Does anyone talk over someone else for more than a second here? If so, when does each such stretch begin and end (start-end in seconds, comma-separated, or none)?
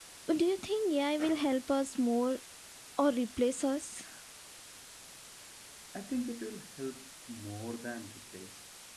none